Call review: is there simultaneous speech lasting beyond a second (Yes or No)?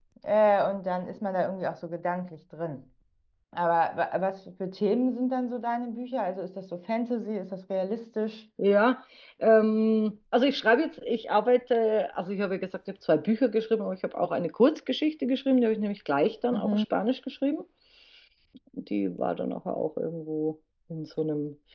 No